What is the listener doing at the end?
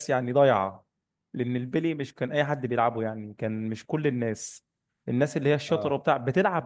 listening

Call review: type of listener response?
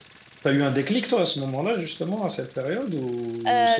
taking over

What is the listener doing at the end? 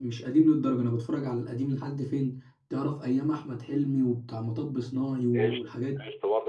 taking over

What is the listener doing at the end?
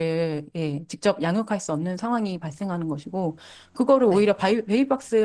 listening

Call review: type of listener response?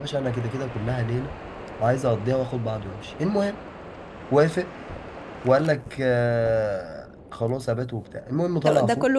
taking over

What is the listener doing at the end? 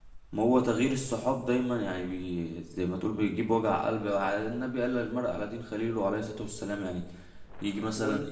listening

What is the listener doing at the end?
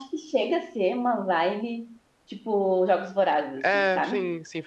taking over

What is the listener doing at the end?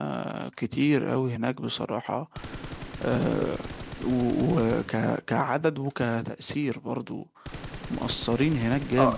taking over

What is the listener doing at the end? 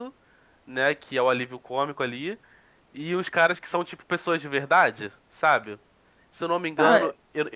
listening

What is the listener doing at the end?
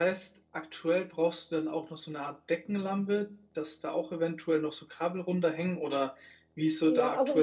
taking over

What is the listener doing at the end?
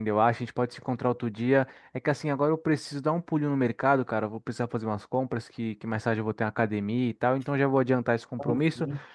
listening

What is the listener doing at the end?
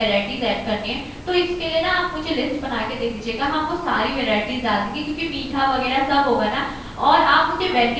listening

